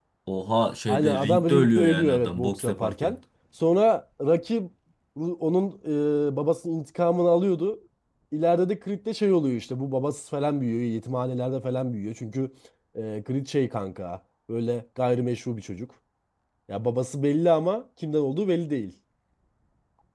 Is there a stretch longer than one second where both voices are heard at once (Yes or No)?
Yes